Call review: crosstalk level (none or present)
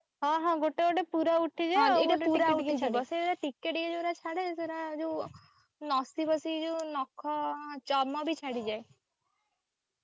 present